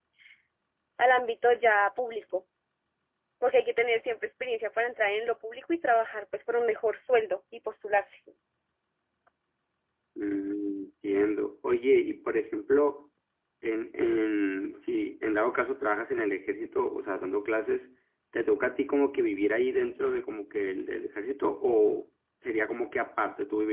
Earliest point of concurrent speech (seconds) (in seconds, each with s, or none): none